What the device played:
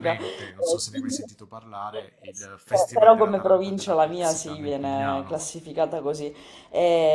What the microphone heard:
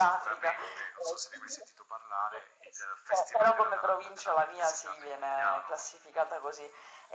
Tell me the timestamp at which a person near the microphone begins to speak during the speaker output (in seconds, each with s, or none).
none